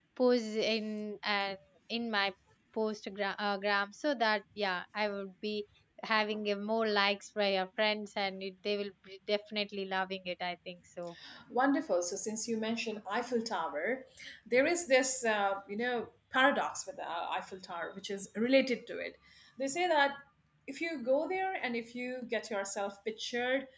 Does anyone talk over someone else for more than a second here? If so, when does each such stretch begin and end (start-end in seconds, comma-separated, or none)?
none